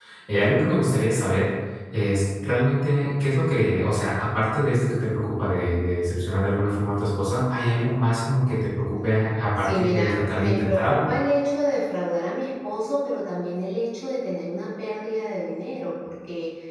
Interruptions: present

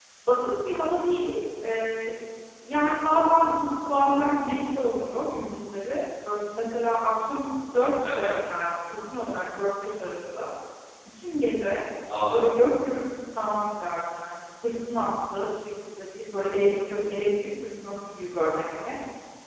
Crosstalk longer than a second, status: none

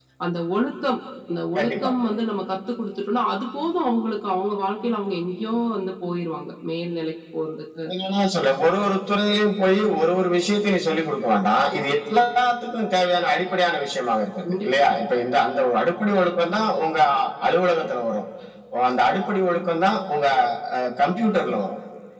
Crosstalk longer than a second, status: none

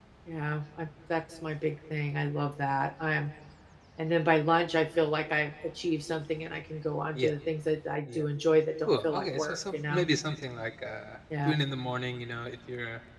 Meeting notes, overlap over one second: present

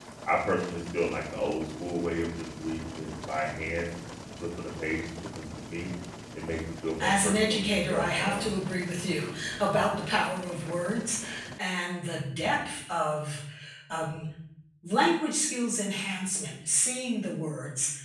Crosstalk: present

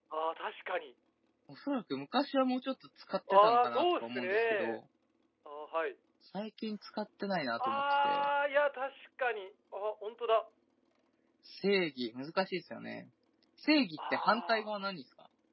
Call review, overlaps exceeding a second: present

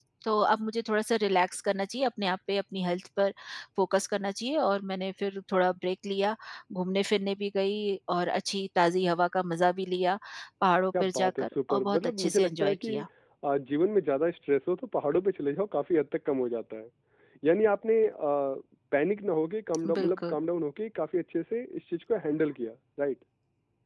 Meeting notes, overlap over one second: present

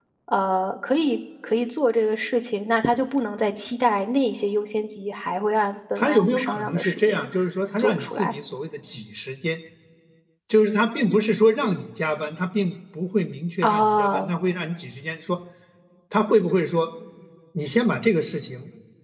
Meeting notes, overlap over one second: present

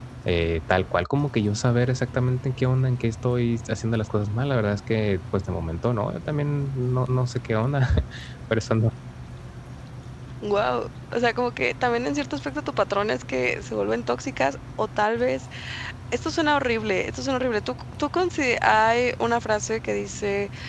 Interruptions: none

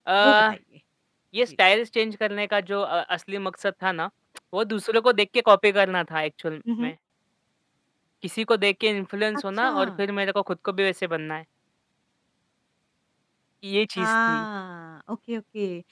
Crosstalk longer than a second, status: none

